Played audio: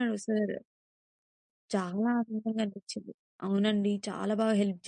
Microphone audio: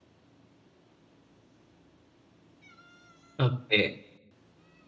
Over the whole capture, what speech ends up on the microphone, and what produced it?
user only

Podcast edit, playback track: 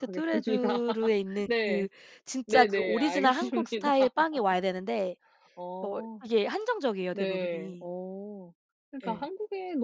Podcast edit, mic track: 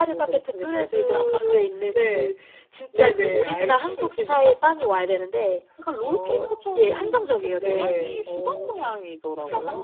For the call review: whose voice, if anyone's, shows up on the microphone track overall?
both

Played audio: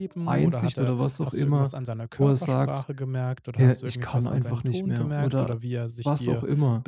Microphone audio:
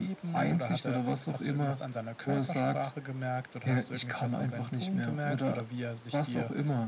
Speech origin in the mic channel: echo only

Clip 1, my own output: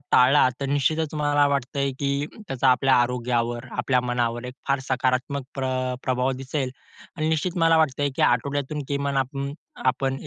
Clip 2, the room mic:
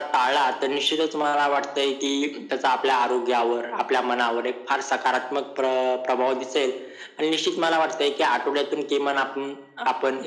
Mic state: echo only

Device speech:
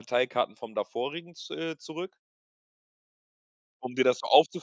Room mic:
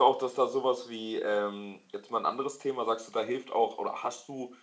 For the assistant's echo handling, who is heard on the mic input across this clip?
user only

